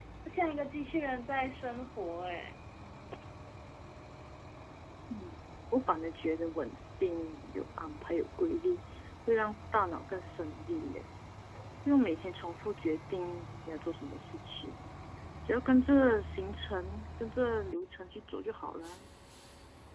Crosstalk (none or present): none